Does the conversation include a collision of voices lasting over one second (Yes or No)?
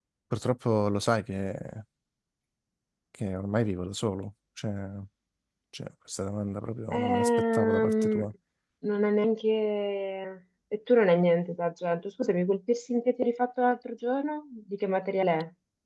Yes